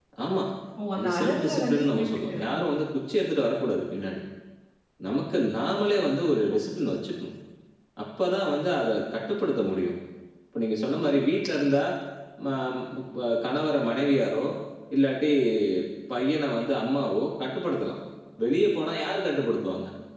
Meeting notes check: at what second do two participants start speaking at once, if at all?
1.0 s

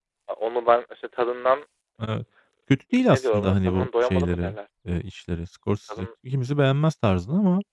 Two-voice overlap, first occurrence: 3.1 s

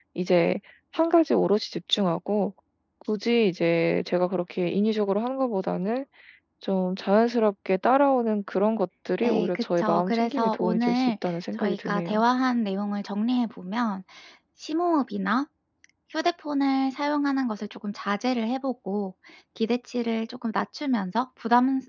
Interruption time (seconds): 9.2 s

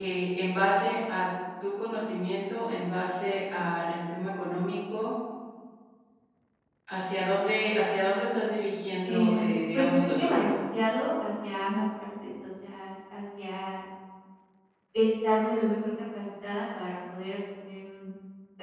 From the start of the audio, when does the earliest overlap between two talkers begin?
9.0 s

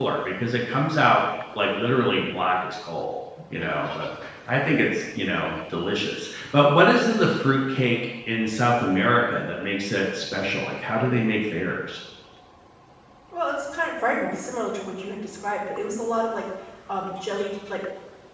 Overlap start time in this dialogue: none

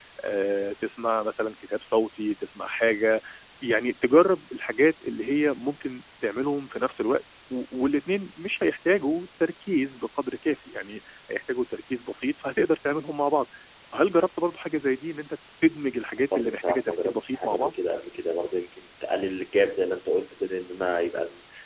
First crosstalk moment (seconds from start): 16.3 s

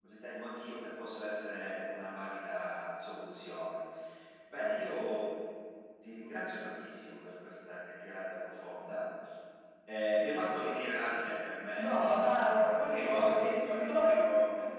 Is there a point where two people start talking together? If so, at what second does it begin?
11.7 s

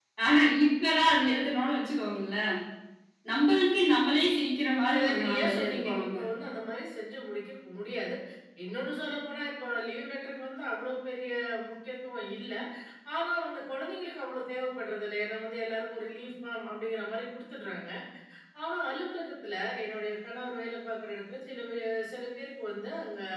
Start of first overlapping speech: 4.9 s

